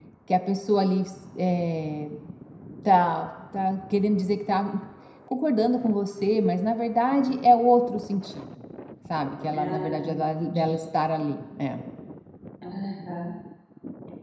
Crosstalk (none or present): present